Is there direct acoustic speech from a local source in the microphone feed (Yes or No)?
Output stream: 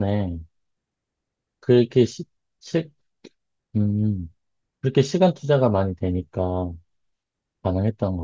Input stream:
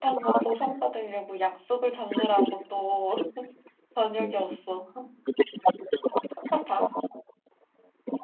Yes